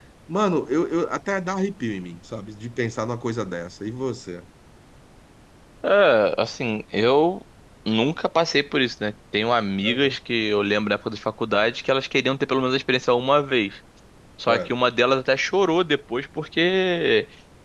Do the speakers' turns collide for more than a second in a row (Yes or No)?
No